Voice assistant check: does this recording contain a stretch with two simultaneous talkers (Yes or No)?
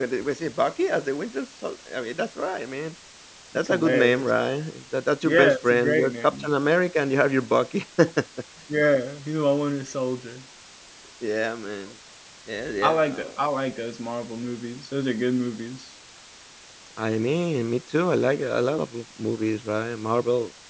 Yes